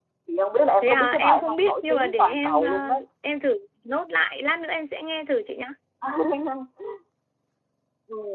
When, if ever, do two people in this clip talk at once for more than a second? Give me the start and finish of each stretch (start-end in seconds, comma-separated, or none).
0.8-3.0